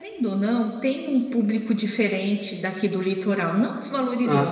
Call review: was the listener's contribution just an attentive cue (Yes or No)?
Yes